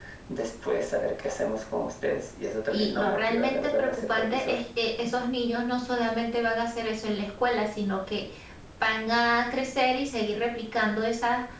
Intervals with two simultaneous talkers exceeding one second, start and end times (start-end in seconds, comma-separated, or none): 2.7-4.6